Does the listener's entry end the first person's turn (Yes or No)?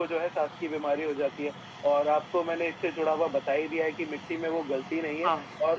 No